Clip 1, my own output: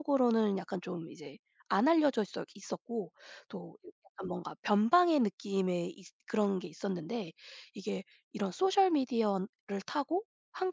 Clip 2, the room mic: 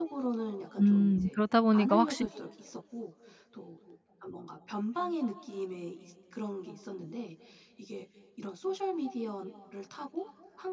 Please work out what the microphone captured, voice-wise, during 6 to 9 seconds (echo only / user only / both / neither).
echo only